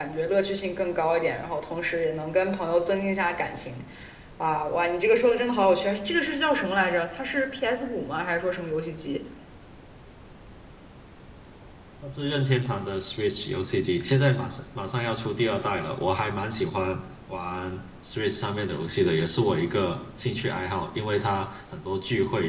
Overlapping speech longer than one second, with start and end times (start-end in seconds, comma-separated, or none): none